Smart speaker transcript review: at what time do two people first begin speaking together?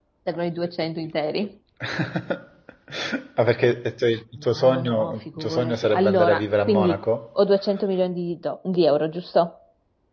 4.4 s

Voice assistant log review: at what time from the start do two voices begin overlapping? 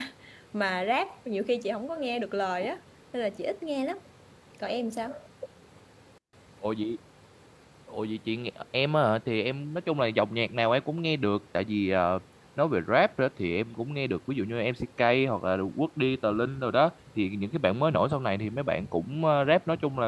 none

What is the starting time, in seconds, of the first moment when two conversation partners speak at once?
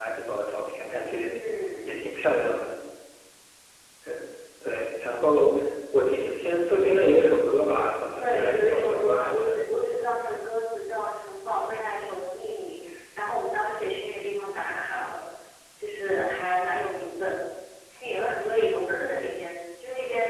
8.2 s

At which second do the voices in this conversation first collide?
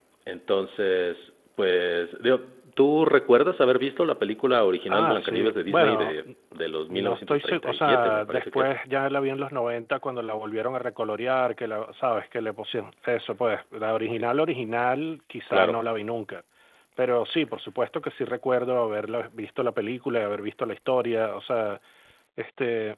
4.9 s

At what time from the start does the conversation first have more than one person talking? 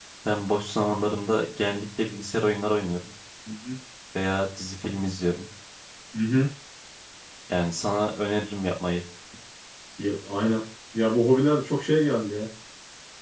none

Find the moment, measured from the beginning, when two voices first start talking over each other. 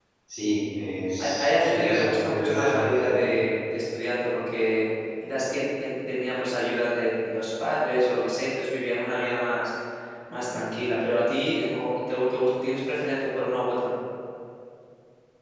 1.2 s

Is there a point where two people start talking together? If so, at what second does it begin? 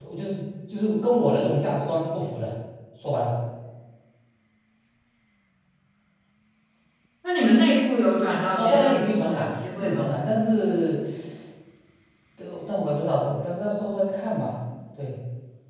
8.5 s

